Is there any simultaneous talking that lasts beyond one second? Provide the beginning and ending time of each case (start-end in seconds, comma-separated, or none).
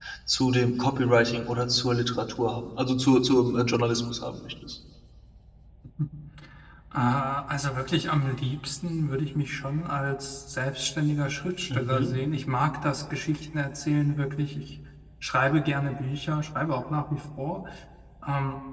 none